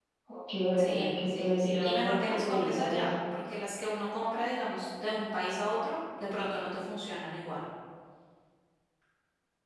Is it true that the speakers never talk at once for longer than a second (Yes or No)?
No